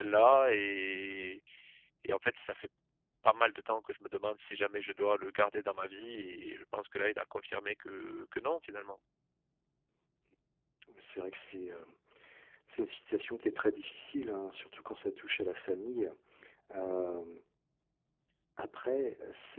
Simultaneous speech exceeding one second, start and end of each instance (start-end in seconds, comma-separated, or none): none